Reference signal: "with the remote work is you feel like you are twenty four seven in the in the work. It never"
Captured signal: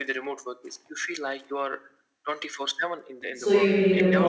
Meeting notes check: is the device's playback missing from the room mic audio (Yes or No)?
No